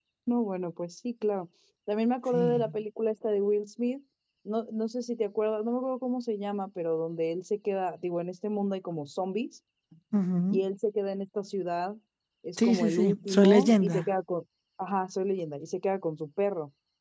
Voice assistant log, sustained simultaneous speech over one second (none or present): present